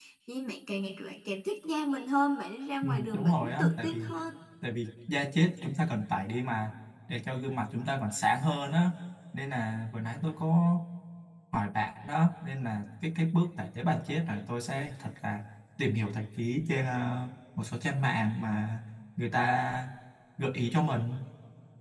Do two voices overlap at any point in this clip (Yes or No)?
Yes